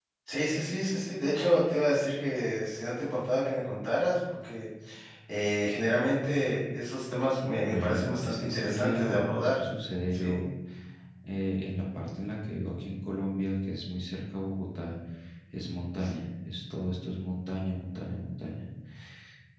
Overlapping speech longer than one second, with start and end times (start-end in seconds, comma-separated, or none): 7.6-9.6